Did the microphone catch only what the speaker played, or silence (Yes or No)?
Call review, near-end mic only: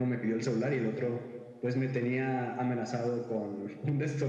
Yes